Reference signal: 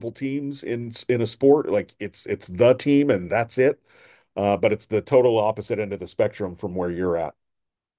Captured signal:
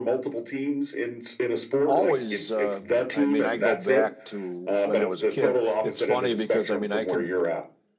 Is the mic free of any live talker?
No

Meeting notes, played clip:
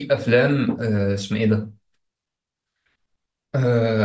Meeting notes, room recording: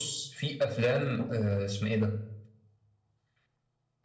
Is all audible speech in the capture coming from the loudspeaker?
Yes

